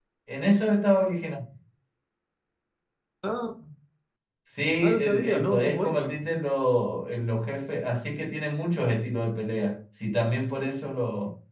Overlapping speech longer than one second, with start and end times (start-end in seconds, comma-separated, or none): 5.0-6.2